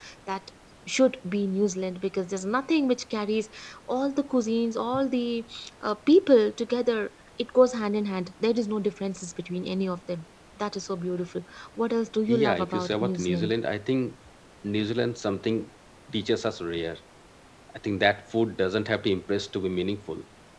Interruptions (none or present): present